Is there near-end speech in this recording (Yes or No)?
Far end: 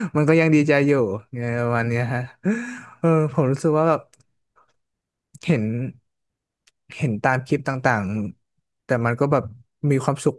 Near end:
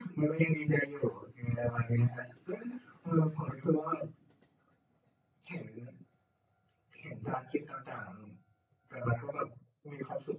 No